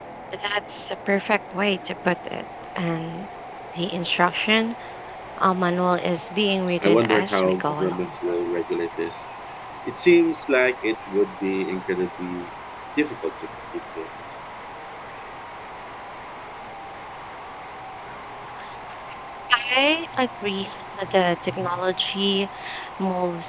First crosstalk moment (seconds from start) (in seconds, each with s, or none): 6.8 s